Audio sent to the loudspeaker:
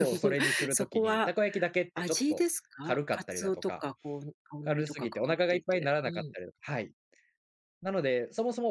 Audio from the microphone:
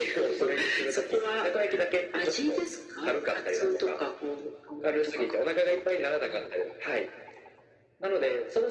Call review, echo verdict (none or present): present